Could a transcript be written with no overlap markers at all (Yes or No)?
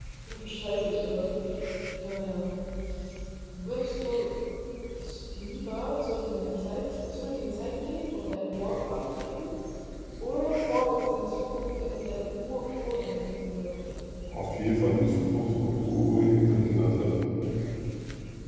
Yes